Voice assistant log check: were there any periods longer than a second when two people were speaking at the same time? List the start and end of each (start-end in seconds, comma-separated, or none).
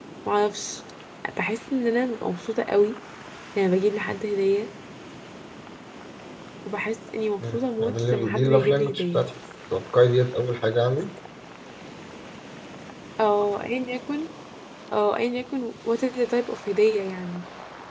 7.4-9.3